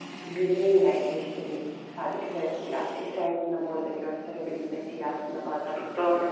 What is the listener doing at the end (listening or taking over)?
listening